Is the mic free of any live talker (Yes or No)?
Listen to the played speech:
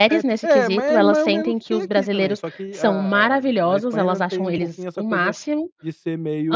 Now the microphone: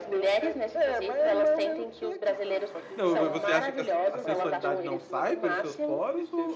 No